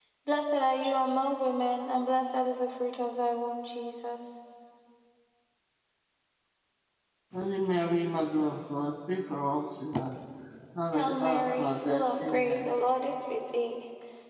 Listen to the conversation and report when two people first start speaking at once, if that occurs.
10.9 s

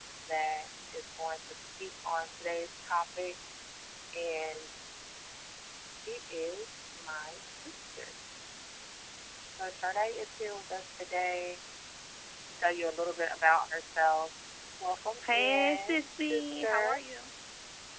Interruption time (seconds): 15.3 s

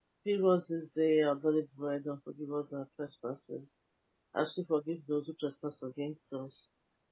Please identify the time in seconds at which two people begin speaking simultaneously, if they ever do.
none

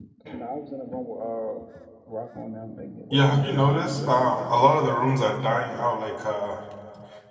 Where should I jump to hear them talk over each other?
3.1 s

